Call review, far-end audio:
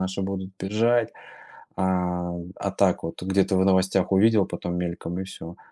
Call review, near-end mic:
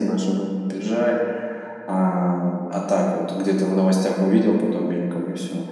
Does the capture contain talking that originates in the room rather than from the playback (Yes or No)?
No